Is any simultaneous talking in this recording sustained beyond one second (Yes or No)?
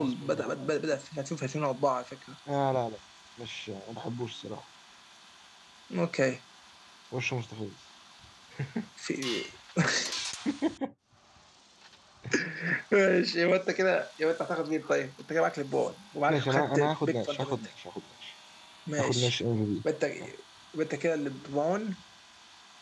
Yes